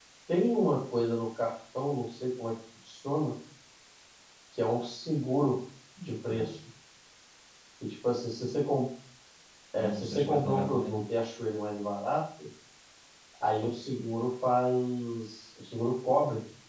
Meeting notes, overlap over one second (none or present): present